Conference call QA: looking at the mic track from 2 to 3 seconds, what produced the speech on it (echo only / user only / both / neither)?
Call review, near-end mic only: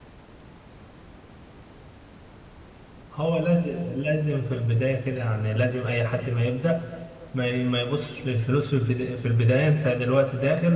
neither